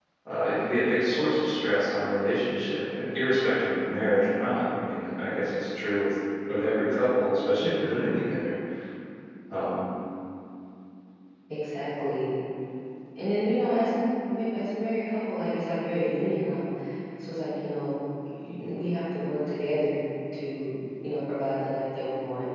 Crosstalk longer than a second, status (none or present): none